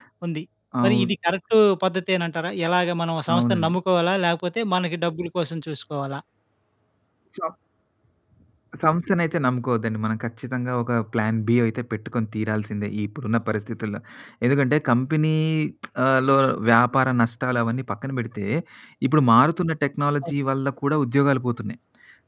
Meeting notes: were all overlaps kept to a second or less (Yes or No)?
Yes